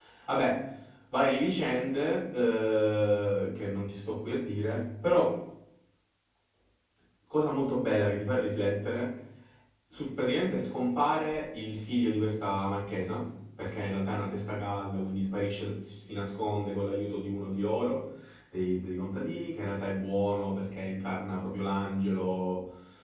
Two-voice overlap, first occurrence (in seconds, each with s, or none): none